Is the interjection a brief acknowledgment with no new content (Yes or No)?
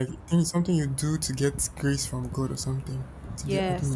No